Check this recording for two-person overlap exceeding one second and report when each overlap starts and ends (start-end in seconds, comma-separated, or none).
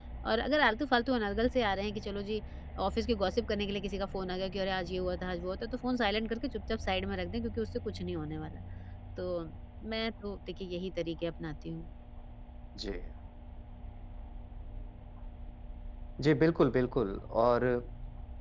none